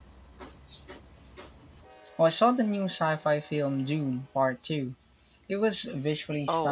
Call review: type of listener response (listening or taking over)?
taking over